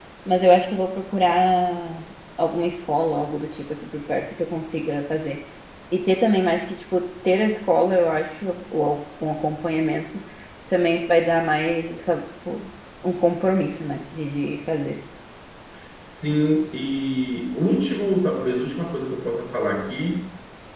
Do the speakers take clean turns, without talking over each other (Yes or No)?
Yes